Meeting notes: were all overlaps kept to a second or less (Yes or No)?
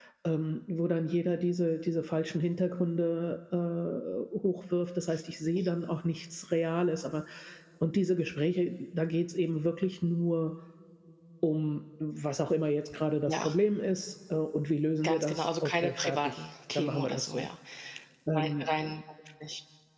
No